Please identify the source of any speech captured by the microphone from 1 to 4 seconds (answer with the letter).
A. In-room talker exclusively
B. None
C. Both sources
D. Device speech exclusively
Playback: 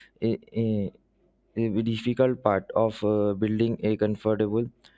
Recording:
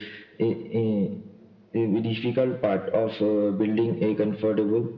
D